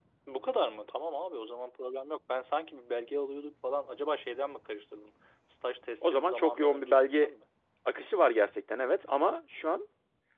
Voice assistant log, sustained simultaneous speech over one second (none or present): present